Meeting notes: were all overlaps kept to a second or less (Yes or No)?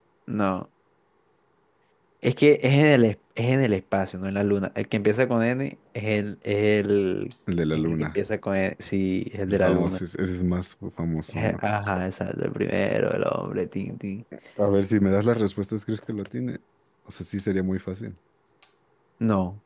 Yes